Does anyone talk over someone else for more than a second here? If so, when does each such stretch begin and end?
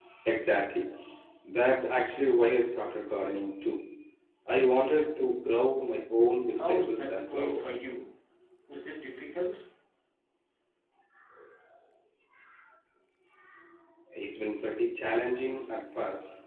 6.5-7.8

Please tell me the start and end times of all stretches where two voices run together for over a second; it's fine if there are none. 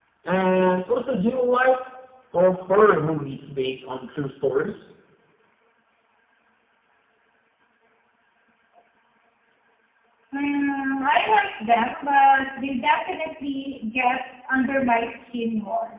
none

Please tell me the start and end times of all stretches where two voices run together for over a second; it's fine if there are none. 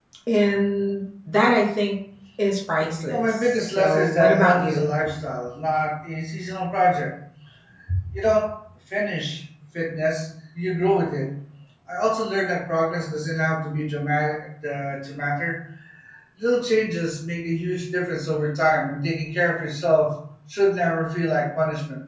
3.1-4.8

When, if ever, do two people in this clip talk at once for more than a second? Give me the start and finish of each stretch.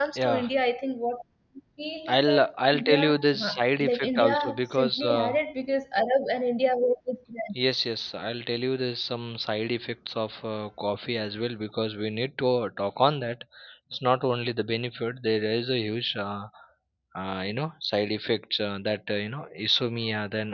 2.1-5.4

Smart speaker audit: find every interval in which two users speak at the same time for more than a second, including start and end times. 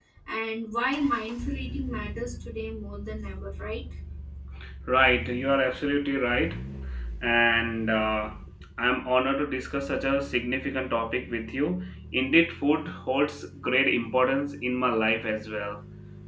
none

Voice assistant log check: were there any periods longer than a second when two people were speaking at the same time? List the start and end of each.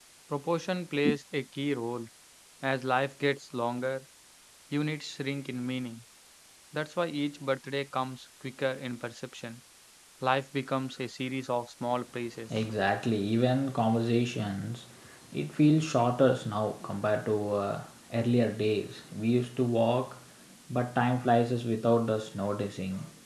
none

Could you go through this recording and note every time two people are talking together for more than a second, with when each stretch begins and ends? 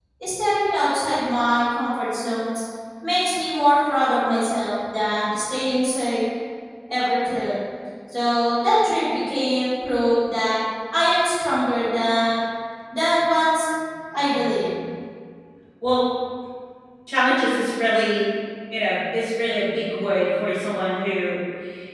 none

